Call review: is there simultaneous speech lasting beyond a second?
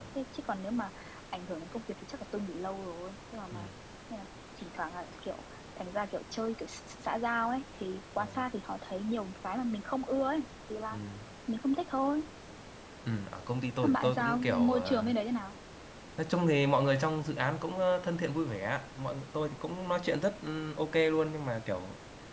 Yes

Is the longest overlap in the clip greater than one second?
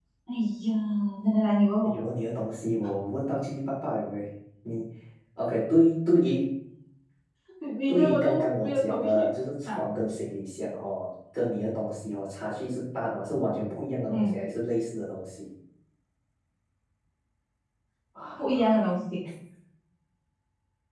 Yes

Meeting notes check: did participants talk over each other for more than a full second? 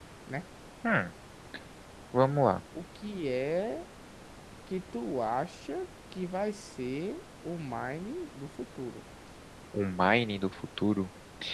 No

